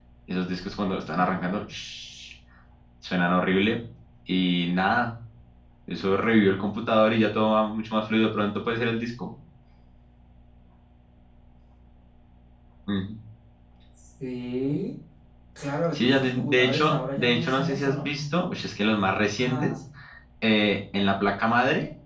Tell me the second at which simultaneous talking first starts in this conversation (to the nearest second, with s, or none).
16 s